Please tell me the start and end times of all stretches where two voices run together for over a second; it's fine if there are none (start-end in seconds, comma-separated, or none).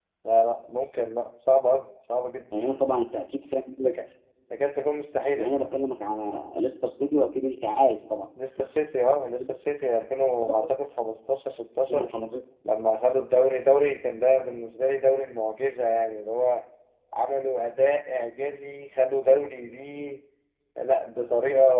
none